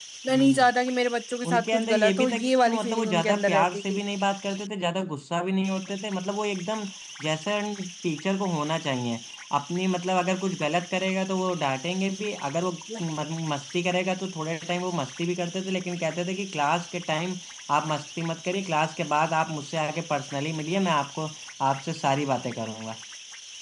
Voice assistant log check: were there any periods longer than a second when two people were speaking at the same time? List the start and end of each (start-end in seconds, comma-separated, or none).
1.5-4.0